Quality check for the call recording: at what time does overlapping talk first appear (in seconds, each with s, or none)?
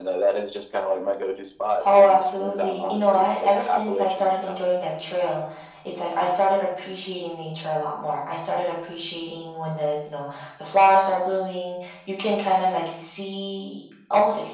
1.8 s